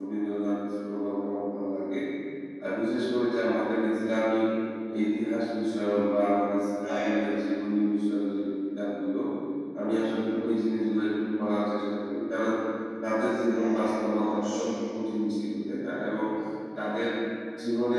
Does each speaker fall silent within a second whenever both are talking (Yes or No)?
No